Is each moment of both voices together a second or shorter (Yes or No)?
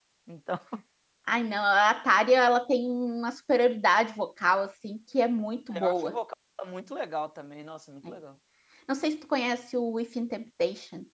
Yes